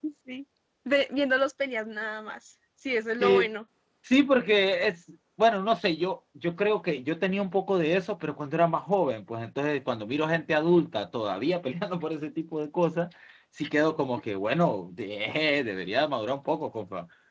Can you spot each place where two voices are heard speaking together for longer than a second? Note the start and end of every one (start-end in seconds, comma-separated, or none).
none